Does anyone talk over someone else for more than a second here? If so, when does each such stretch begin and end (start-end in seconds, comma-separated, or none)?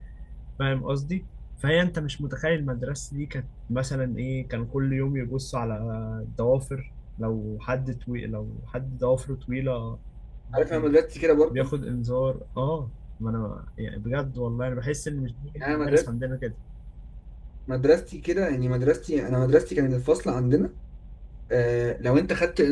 none